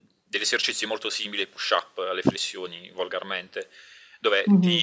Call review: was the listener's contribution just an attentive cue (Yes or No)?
Yes